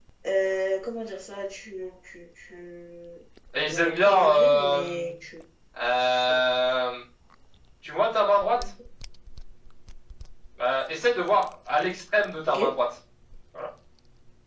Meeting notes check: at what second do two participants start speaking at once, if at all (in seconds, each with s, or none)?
3.7 s